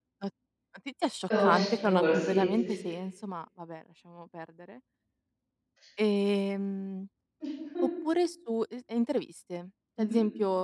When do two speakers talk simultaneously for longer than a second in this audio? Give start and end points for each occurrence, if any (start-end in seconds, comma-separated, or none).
1.4-2.7